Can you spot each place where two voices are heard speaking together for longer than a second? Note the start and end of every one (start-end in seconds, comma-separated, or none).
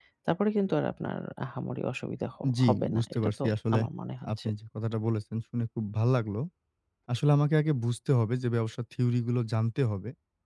2.6-3.8